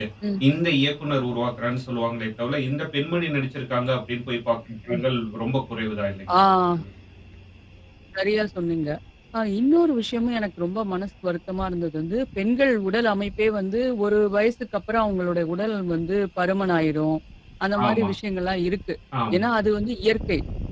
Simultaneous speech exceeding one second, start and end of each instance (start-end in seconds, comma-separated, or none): none